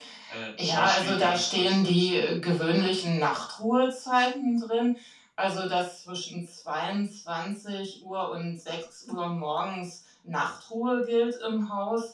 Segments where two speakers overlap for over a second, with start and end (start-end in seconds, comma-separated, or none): 0.7-2.1